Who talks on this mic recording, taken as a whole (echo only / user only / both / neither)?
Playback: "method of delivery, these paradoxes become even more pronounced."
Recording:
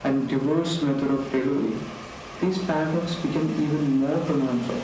echo only